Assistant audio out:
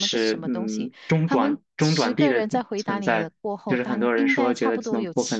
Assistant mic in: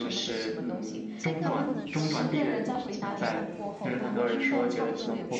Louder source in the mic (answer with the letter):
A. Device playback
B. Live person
A